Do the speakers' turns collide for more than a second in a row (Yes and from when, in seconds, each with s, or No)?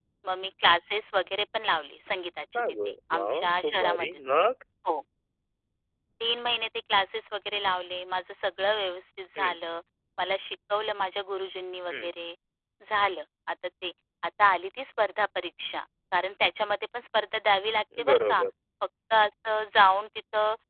Yes, from 2.6 s